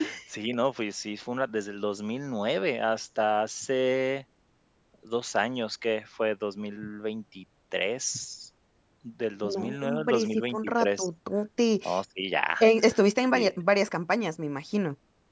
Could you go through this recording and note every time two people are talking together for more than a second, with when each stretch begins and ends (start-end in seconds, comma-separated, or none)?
9.4-11.1